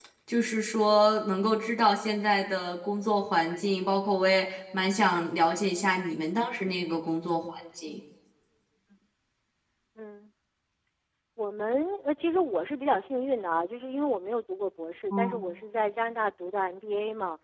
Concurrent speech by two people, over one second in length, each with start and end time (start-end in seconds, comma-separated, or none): none